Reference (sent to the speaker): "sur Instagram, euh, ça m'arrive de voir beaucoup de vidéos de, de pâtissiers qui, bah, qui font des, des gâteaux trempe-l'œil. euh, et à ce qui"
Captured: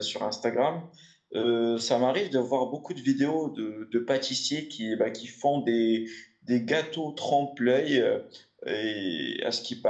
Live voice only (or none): none